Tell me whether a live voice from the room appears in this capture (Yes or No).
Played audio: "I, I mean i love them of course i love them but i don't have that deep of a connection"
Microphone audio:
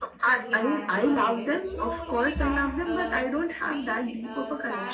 Yes